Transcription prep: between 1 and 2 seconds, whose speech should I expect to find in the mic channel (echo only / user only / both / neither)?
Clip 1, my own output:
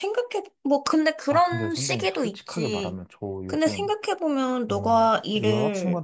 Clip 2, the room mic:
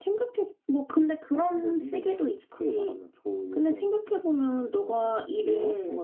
echo only